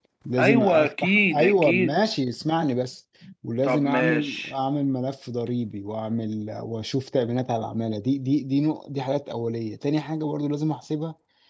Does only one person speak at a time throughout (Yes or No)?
No